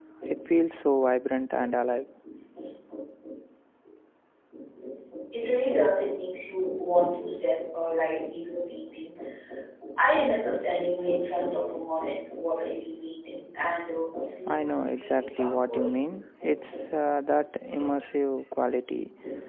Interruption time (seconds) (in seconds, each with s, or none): 14.5 s